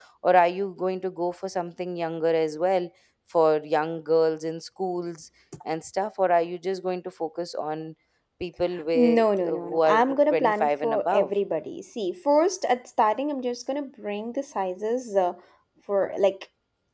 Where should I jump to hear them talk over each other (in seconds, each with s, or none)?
8.9 s